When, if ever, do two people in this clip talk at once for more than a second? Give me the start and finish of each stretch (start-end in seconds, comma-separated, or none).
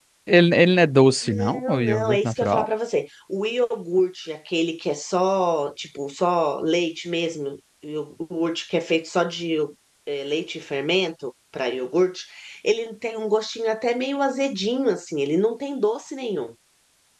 1.2-2.7